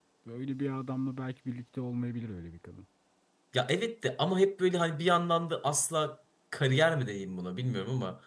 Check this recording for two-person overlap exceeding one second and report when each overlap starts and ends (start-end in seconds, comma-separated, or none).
none